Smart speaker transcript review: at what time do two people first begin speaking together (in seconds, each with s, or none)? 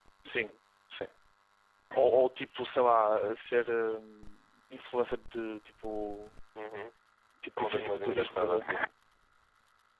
7.4 s